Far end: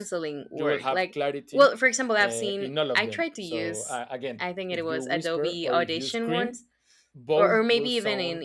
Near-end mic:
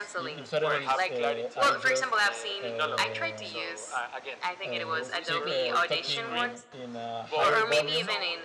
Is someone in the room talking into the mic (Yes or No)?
Yes